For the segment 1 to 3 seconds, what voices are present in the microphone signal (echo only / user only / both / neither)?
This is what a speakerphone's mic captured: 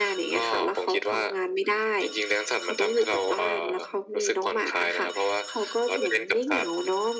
echo only